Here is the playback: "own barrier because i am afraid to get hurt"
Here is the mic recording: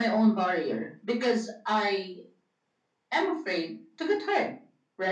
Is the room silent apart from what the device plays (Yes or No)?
Yes